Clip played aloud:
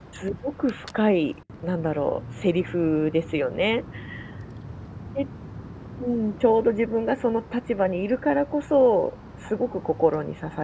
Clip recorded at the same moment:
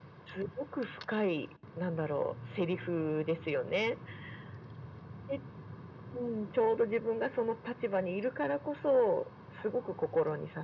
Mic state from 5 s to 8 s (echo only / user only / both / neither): echo only